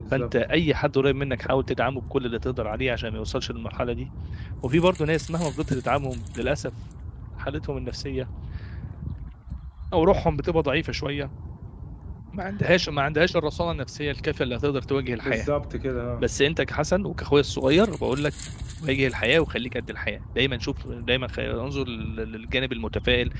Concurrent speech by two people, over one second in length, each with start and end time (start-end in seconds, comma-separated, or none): none